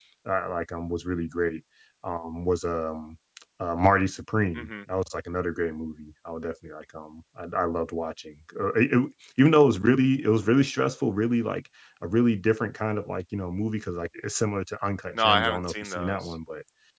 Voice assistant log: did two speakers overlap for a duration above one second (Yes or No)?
Yes